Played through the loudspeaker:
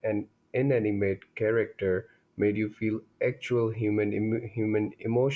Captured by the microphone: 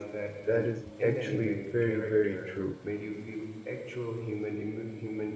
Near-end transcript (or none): That is actually very, very true.